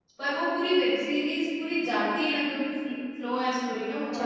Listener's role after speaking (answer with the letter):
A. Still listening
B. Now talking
B